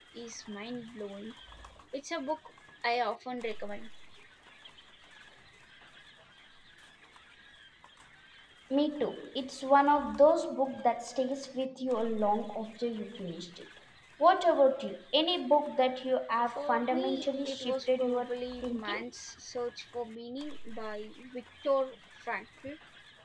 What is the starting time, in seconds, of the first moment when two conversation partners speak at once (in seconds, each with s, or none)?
16.5 s